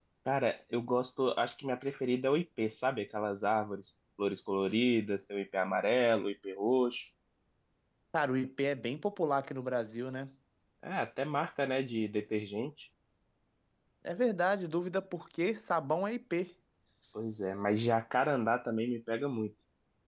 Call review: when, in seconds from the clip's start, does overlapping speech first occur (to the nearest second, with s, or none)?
none